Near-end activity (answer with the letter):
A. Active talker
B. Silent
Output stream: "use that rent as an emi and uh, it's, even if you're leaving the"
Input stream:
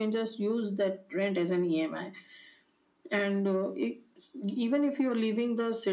B